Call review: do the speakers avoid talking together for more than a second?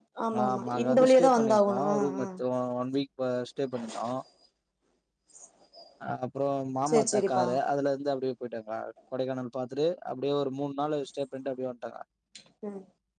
No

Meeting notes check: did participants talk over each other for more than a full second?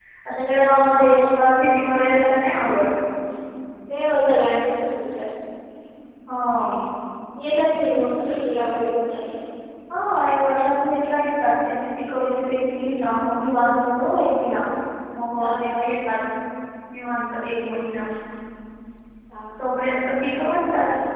Yes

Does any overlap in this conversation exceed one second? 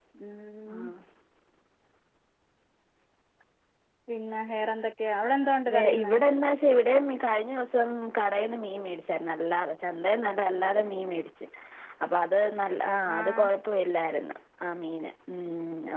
No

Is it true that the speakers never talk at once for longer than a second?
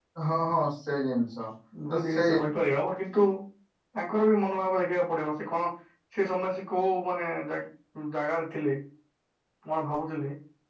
Yes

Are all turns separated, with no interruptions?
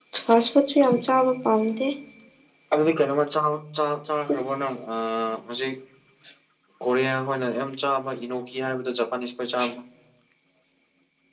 Yes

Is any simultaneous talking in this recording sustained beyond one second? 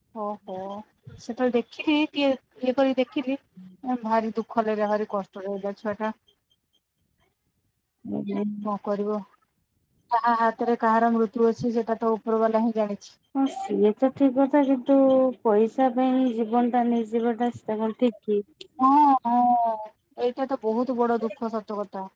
No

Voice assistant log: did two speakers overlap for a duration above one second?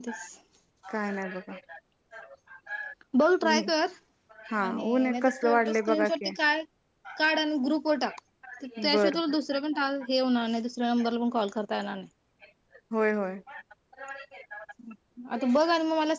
Yes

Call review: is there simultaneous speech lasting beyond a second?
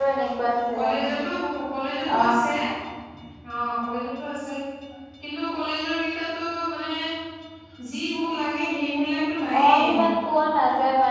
No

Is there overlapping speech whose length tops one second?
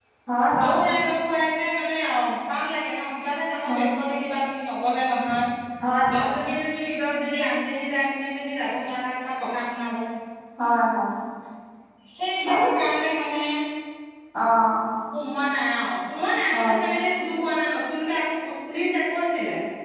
No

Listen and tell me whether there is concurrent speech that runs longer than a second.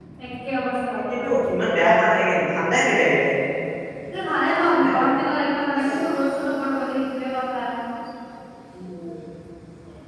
No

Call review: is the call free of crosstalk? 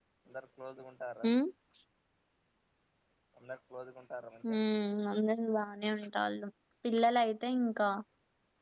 Yes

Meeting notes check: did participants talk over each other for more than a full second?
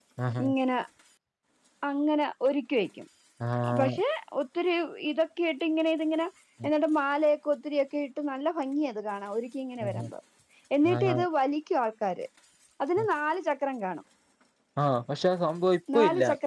No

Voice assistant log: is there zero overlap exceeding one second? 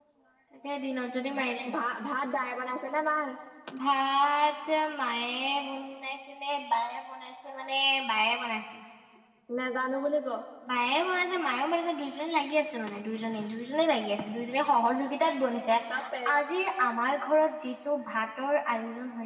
Yes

